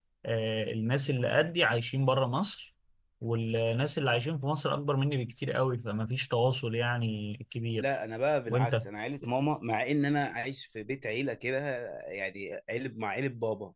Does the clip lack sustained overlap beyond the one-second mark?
Yes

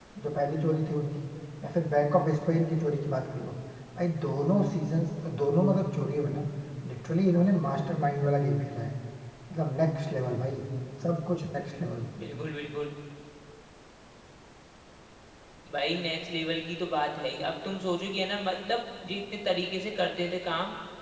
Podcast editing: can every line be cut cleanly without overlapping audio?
Yes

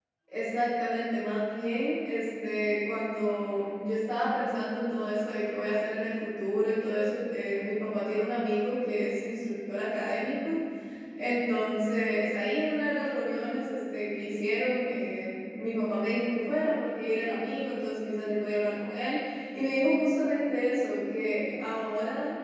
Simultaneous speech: No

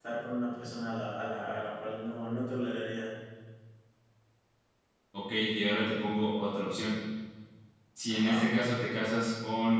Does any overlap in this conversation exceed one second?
No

